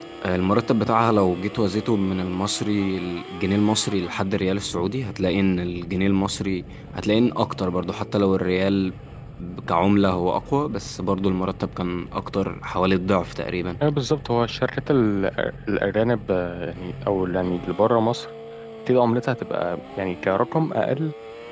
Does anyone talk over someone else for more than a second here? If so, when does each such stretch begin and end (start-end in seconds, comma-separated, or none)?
none